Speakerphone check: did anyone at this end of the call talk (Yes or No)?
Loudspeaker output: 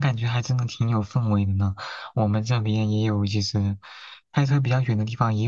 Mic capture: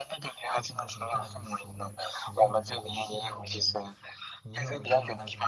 Yes